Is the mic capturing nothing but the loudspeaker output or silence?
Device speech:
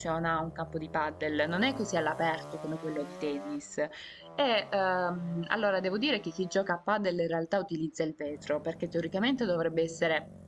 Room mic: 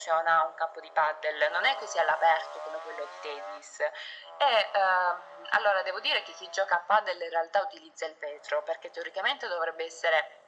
Yes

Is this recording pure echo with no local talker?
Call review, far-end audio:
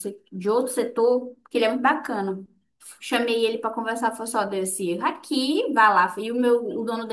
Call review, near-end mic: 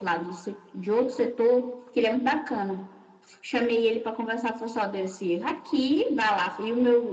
Yes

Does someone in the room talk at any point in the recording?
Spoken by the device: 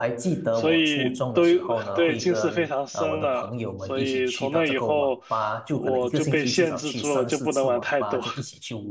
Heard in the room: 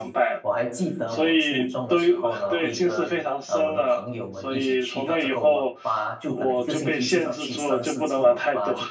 No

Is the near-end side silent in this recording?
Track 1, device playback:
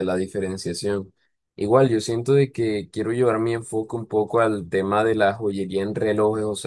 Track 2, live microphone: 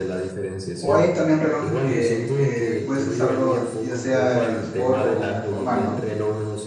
No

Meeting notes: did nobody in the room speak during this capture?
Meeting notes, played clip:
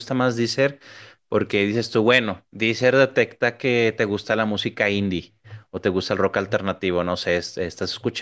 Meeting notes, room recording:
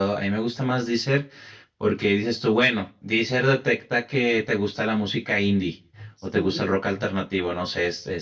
No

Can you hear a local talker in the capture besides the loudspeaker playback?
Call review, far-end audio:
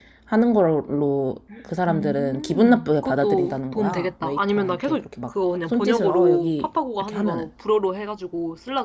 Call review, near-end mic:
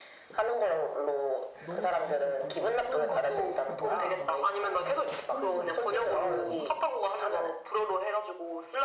Yes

